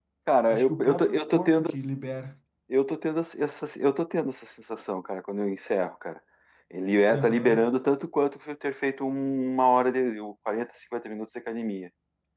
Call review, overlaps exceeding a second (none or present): present